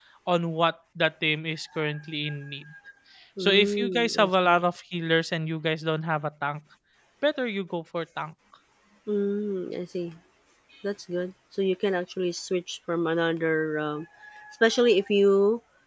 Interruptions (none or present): present